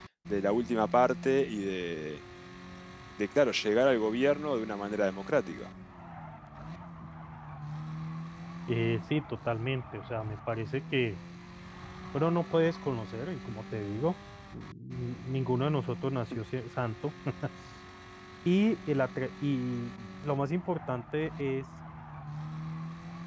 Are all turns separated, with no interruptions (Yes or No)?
Yes